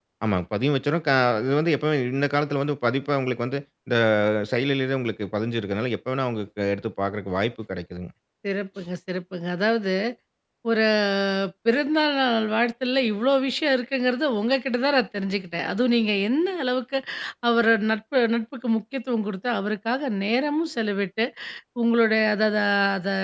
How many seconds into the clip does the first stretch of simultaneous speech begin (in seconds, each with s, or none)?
none